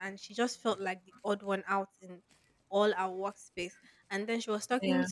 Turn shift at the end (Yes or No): No